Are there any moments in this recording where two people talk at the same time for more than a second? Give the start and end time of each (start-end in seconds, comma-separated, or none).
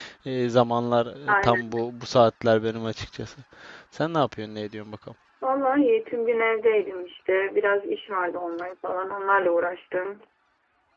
none